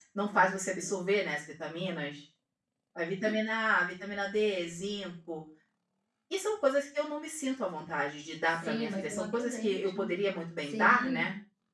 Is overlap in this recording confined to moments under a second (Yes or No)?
No